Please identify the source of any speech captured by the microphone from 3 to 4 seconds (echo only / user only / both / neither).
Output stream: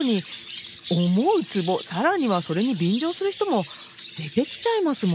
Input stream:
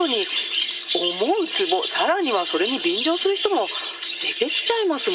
echo only